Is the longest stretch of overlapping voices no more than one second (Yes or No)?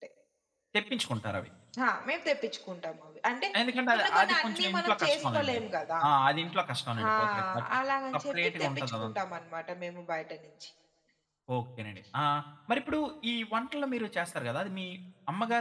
No